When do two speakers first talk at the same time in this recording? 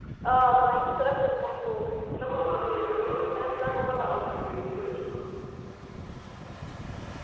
2 s

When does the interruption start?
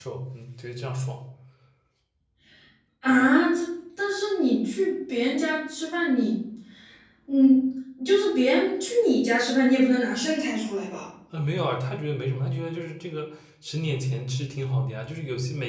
none

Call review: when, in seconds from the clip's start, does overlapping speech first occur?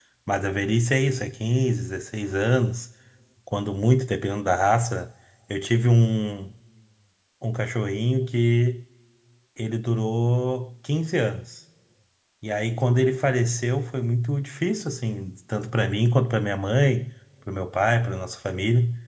none

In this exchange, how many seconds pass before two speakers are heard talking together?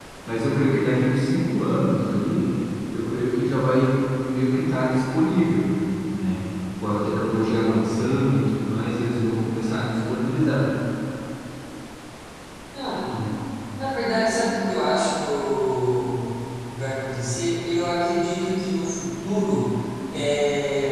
none

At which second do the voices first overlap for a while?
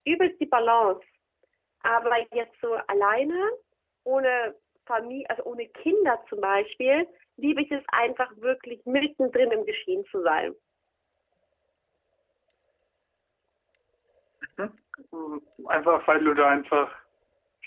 none

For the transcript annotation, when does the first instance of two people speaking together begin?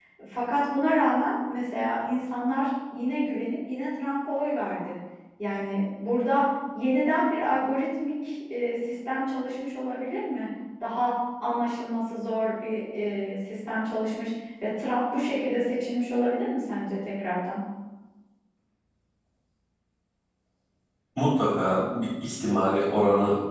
none

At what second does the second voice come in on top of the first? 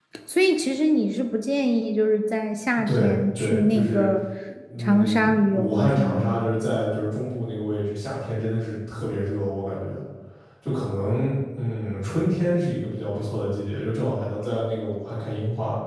3 s

